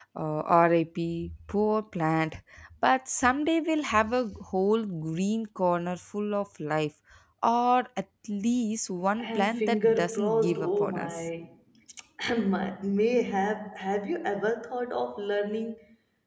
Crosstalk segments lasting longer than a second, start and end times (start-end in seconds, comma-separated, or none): 9.2-11.3